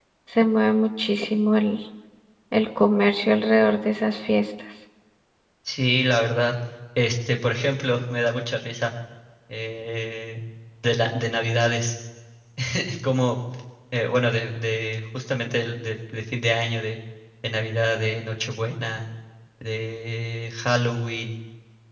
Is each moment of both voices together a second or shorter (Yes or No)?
Yes